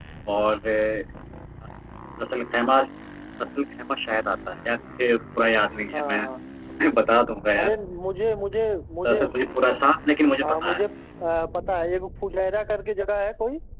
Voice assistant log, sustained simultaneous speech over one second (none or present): none